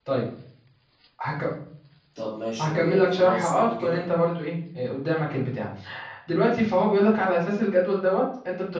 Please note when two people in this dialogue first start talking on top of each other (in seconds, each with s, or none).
2.6 s